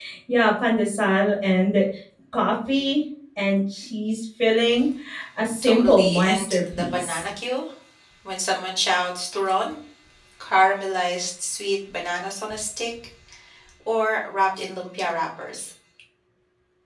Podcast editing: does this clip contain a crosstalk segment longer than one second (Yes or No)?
Yes